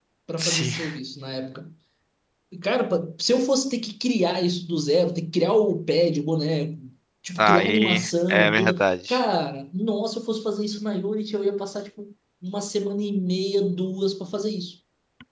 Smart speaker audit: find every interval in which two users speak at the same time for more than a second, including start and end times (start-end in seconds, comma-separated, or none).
7.4-9.2